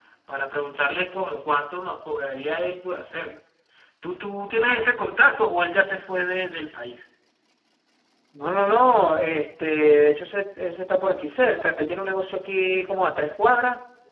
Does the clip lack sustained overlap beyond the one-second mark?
Yes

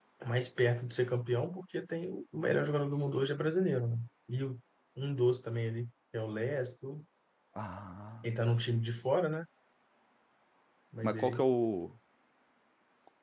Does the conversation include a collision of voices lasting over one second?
No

